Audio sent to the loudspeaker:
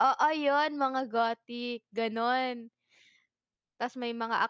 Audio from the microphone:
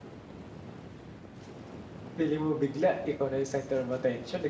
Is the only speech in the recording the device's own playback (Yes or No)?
No